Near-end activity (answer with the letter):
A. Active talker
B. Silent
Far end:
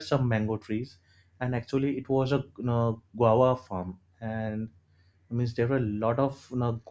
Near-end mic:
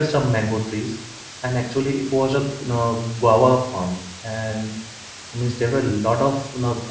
B